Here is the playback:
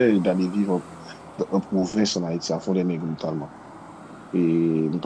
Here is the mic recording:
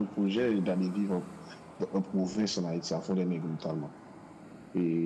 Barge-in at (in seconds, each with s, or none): none